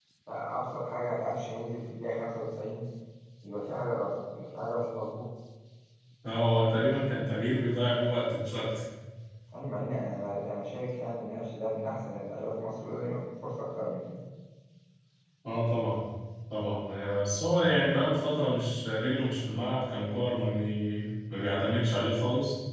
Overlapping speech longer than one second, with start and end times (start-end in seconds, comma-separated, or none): none